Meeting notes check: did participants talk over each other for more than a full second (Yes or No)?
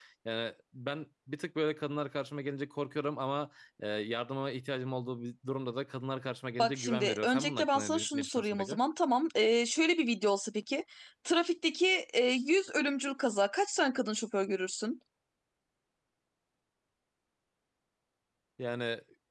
Yes